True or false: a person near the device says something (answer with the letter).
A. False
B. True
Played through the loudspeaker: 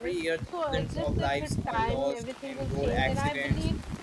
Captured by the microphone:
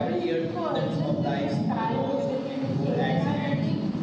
A